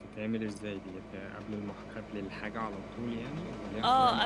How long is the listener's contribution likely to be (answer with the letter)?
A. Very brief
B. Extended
B